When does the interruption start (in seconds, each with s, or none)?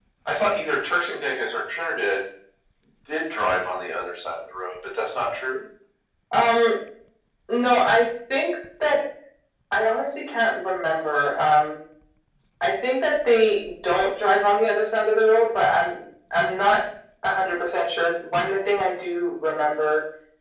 none